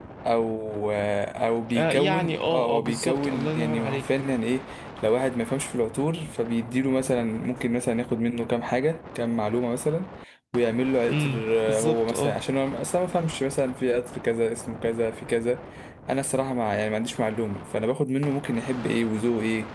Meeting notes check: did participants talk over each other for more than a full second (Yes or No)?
Yes